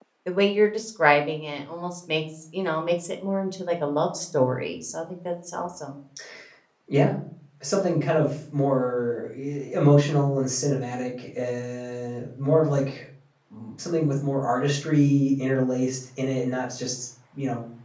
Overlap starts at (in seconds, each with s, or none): none